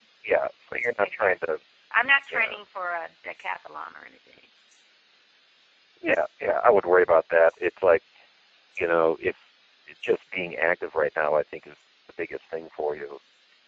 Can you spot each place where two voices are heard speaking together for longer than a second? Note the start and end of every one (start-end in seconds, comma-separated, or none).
none